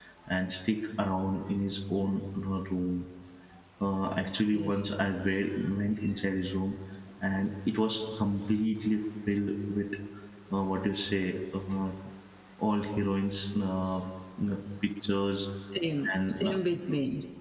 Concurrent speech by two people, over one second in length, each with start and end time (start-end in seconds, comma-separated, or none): none